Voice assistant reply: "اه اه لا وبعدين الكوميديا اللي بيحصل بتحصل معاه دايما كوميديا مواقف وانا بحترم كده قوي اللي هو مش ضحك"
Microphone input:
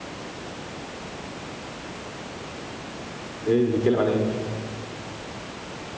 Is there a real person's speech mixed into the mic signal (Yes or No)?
Yes